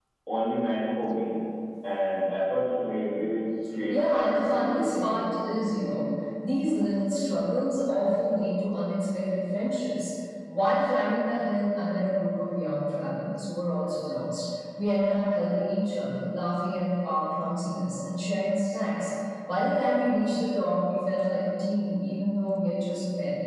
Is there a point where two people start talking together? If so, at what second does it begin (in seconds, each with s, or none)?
3.9 s